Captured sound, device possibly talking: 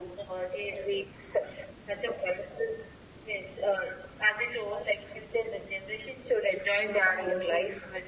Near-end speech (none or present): present